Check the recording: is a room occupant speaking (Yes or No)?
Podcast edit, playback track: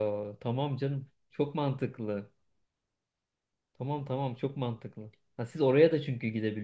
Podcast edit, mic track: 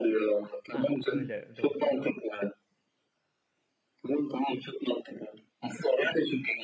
Yes